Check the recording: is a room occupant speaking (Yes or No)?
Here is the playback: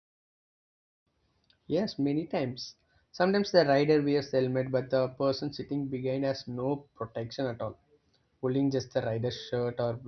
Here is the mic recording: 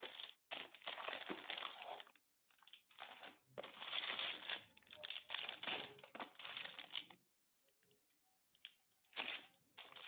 No